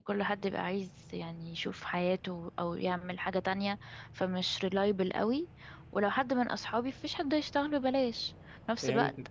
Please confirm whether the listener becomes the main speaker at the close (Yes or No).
No